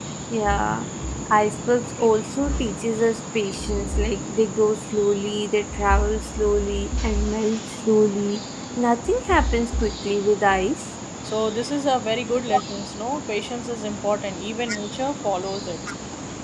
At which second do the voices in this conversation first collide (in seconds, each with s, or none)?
none